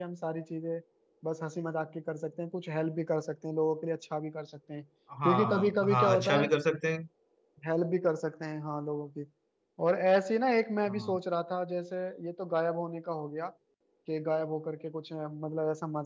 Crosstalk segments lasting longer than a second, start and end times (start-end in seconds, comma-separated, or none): 5.2-6.5